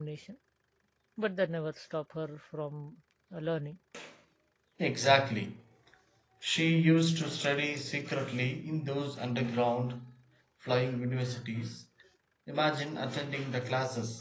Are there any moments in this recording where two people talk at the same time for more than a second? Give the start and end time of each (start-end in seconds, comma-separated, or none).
none